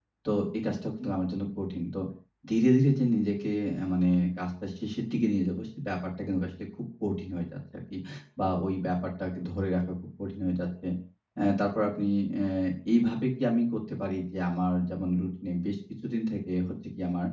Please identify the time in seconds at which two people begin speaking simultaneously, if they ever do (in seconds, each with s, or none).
none